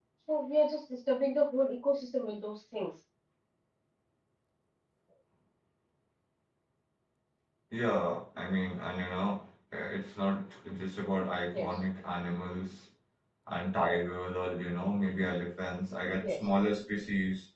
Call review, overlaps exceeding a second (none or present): none